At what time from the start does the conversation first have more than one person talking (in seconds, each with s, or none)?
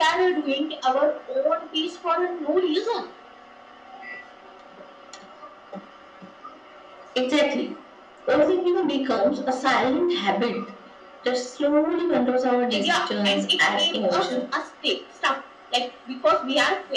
12.7 s